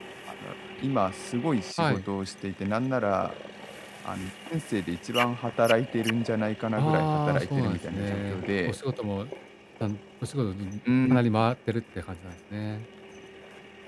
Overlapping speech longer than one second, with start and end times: 6.8-8.8

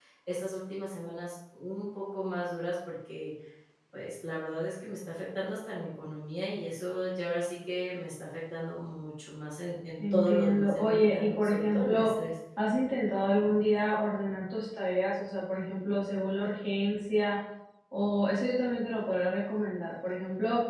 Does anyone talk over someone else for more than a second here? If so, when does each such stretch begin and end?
10.1-12.1

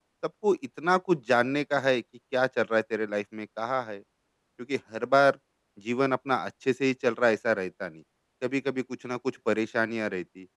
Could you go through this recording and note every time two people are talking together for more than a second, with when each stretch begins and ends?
none

